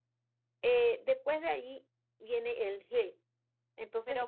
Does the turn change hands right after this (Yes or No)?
Yes